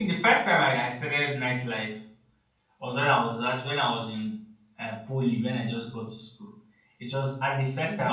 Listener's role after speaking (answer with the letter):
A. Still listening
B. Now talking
A